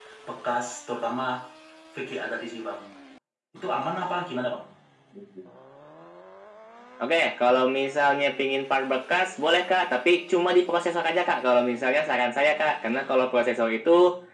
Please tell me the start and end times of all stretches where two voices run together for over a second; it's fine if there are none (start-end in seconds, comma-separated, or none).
none